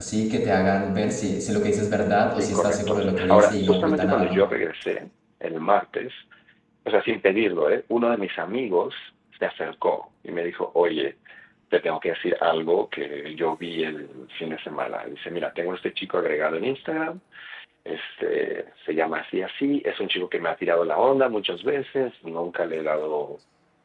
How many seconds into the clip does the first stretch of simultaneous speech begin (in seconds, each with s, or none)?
2.3 s